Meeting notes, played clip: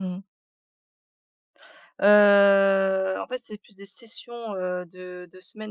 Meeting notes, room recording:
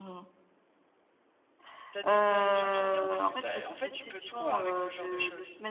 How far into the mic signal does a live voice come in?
1.9 s

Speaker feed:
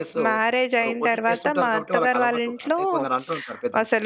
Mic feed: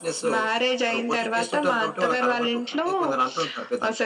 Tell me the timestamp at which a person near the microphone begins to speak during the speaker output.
none

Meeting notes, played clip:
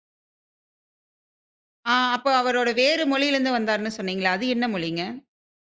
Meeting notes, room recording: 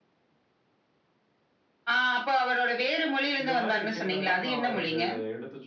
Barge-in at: 3.4 s

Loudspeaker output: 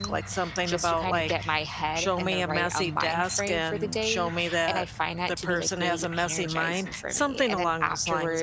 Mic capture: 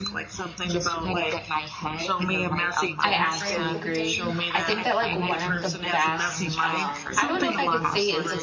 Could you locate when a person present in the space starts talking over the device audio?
3.0 s

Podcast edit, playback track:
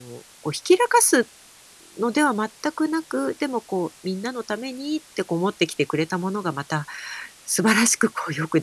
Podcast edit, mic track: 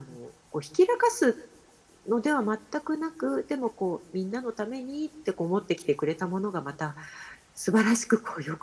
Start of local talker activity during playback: none

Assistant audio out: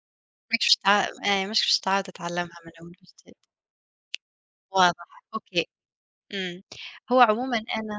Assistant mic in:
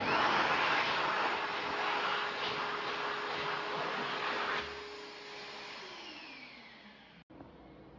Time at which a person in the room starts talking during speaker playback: none

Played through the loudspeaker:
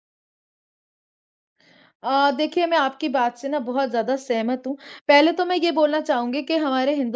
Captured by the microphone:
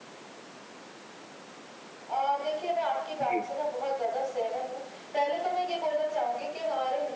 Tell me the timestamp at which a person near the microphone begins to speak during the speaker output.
3.2 s

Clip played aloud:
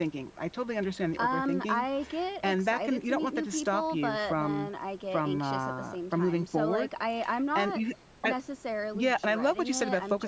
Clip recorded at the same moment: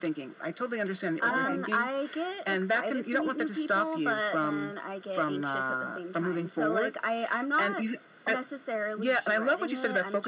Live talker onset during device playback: 1.3 s

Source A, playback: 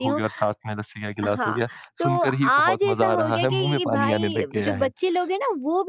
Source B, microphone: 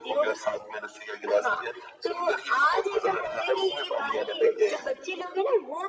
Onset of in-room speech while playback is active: none

